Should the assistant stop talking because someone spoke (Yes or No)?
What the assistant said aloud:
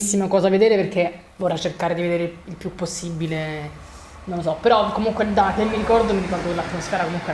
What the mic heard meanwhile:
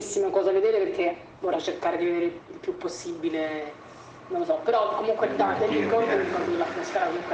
Yes